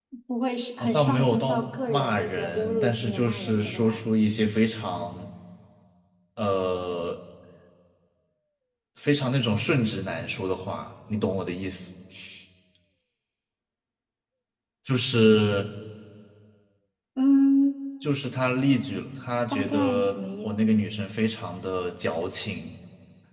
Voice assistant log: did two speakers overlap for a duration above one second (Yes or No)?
Yes